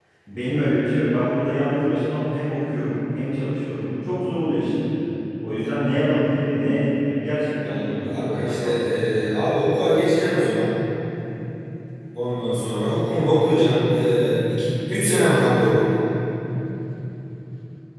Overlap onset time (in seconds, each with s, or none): 7.6 s